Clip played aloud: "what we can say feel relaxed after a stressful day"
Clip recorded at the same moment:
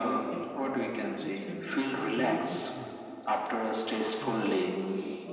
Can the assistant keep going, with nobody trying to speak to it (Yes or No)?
No